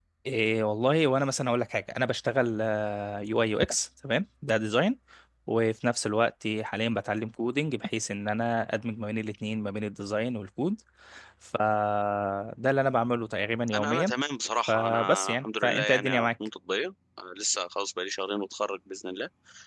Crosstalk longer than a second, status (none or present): present